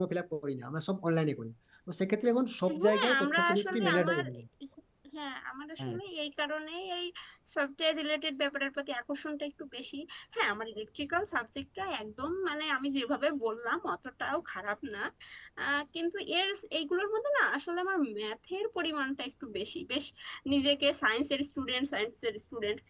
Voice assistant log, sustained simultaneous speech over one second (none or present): present